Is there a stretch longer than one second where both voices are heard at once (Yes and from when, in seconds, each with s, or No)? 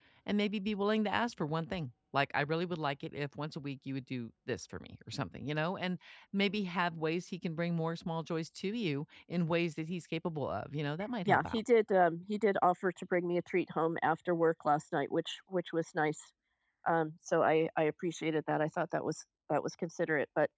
No